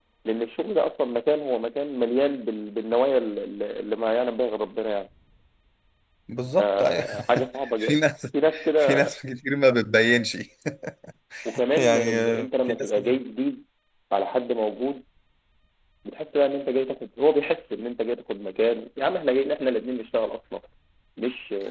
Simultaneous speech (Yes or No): Yes